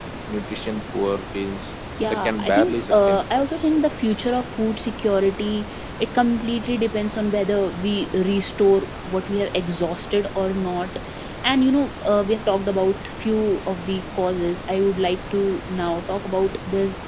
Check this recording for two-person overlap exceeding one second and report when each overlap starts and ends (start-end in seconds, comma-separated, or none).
2.0-4.0